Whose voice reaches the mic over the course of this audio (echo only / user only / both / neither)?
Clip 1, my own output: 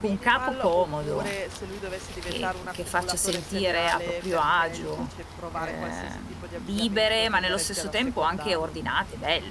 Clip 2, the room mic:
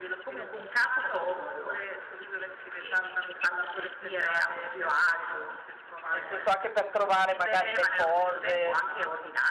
both